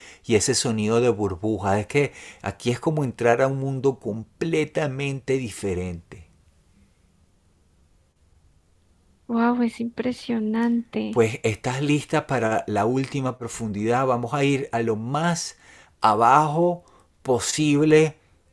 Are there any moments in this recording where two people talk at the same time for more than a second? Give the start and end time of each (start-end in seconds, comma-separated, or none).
none